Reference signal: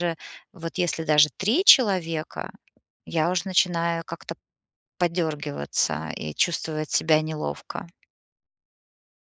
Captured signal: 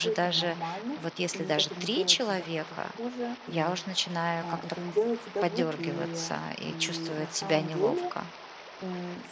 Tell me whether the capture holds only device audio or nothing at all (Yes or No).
No